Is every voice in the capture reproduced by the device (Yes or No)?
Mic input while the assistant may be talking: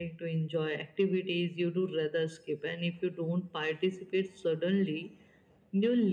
Yes